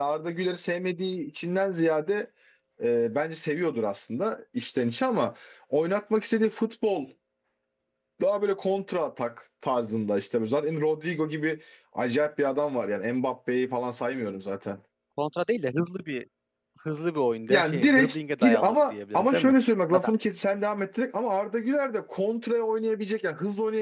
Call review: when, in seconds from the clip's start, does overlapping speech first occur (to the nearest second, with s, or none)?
17 s